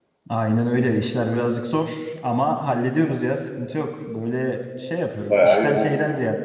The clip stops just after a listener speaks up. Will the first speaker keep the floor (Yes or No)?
Yes